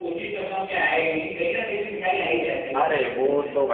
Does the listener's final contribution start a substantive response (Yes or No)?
Yes